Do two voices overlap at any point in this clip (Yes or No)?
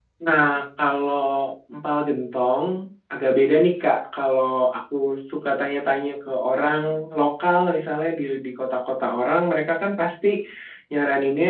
No